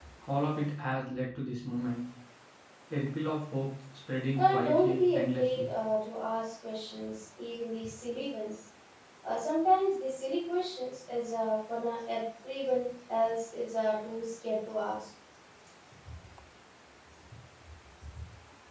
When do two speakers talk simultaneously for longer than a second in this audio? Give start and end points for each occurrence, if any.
4.4-5.7

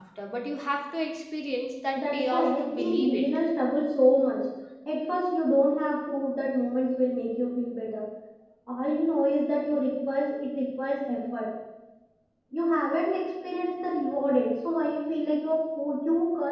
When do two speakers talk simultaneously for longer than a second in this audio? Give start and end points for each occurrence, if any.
2.0-3.3

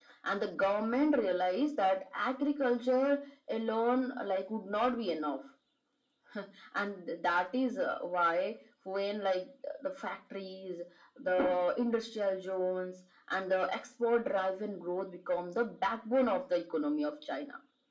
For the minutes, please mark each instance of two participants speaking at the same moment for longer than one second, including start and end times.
none

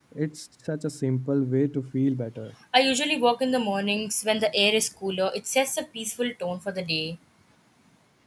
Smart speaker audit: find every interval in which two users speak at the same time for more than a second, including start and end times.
none

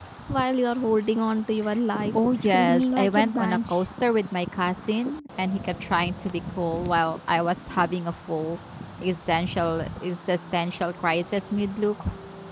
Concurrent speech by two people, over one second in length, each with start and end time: 2.4-3.8

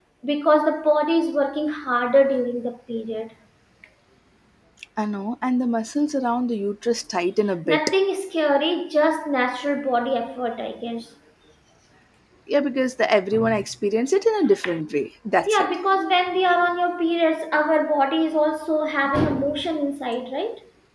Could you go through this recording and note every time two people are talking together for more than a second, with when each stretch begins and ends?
none

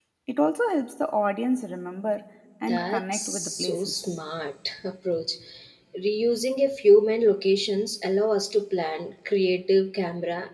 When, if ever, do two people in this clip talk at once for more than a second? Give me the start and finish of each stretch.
2.7-4.2

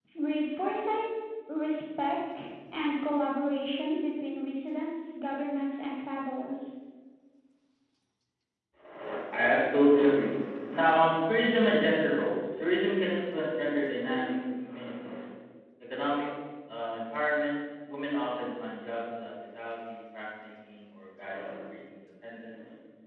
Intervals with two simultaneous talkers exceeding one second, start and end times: none

